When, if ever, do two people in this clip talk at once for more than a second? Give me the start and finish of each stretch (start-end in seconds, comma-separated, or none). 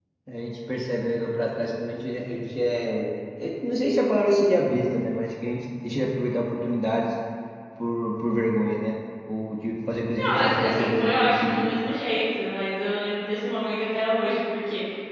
10.2-11.7